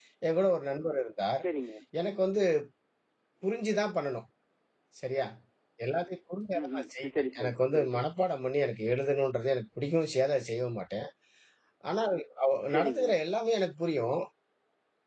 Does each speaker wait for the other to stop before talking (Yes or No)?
No